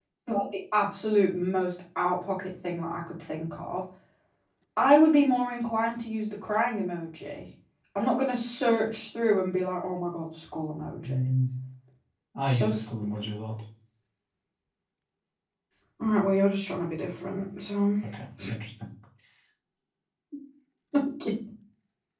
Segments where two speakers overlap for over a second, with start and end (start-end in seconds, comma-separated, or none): none